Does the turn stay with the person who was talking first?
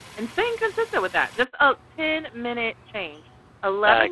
Yes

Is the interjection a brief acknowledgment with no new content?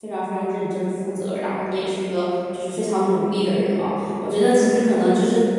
Yes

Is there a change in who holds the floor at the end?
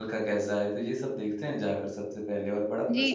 Yes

